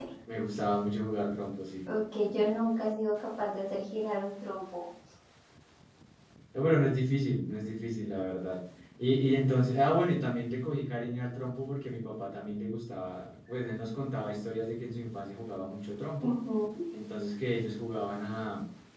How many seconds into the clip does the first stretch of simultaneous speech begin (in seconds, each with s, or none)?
none